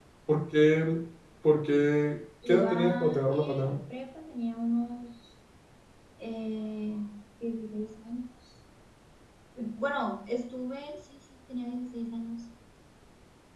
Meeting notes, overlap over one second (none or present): present